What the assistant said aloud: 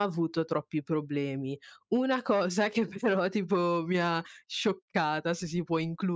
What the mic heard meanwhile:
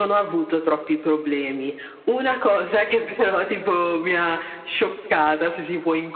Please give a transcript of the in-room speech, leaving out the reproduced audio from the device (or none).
none